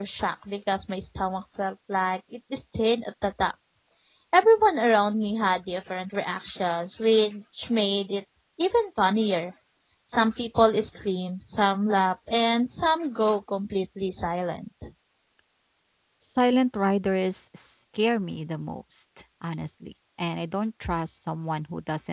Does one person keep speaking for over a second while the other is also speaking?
No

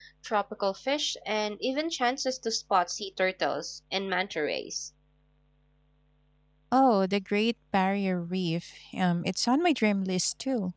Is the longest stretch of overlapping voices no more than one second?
Yes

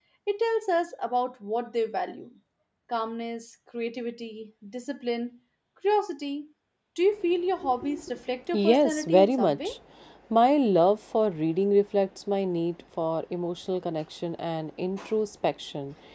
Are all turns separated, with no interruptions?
No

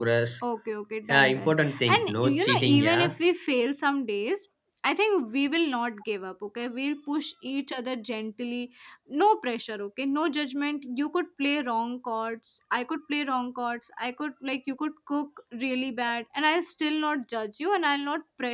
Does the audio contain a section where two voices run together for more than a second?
Yes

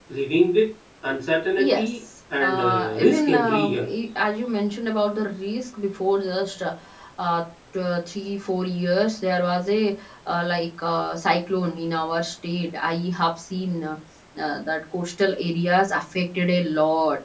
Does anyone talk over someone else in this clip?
Yes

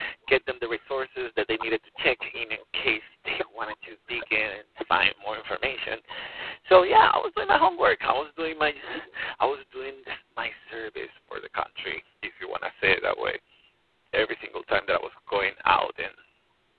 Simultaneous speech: No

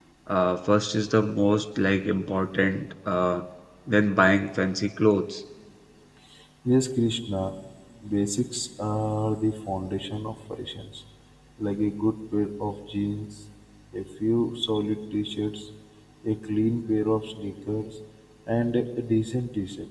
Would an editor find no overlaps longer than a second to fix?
Yes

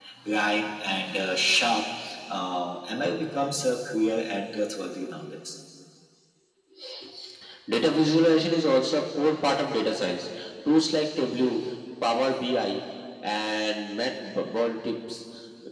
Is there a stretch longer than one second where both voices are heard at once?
No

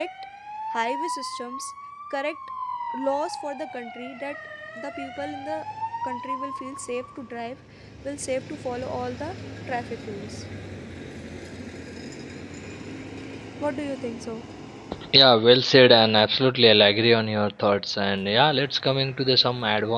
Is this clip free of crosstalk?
Yes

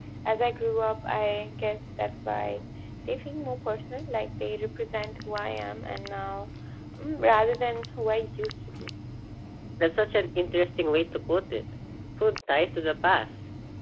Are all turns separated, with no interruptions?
Yes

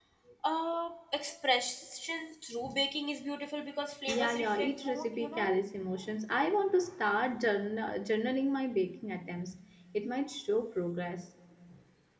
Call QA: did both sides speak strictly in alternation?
No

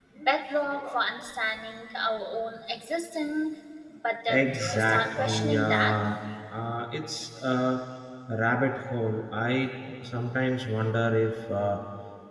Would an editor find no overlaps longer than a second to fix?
No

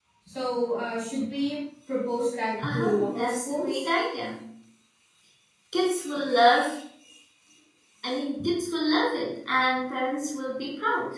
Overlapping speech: Yes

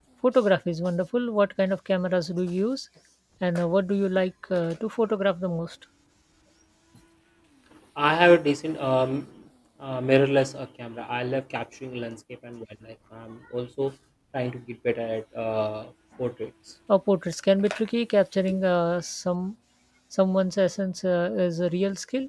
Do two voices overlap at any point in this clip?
No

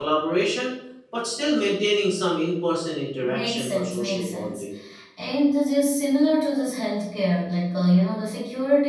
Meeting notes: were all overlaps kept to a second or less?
No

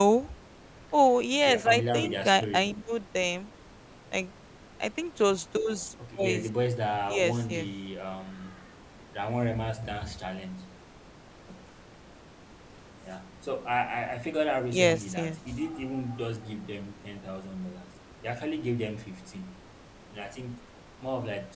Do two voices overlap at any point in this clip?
Yes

